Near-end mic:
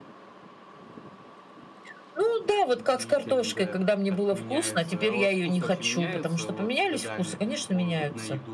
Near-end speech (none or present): present